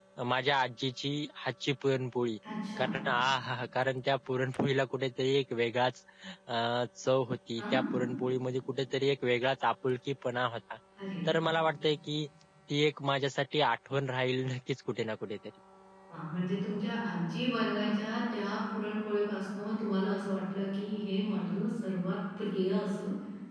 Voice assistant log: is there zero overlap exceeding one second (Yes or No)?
Yes